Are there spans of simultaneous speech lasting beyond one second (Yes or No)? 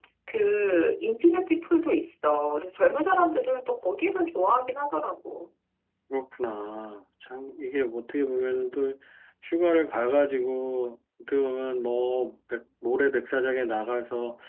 No